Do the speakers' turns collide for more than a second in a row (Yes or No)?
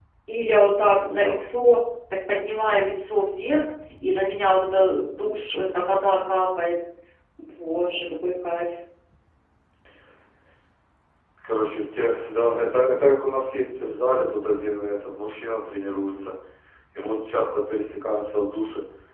No